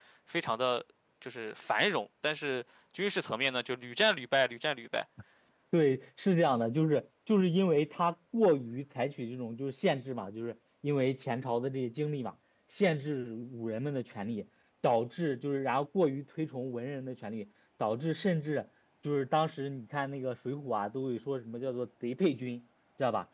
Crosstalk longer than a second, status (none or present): none